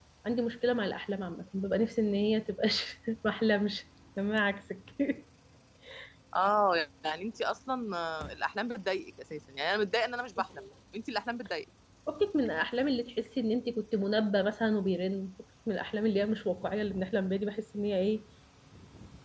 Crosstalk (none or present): none